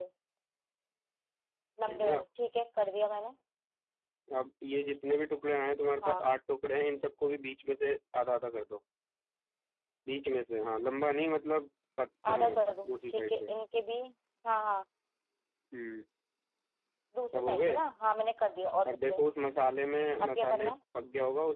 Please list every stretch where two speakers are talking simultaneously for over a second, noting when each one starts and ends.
12.3-13.5

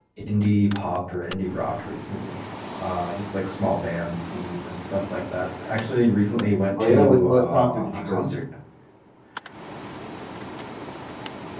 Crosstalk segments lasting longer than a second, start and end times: 6.8-8.2

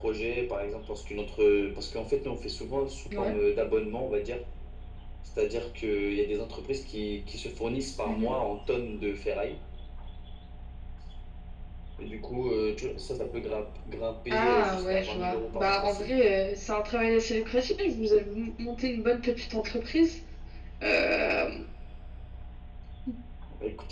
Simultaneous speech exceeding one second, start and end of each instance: 14.3-16.1

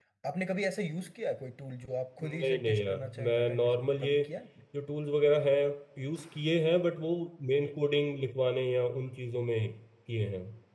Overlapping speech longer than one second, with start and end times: 2.2-4.2

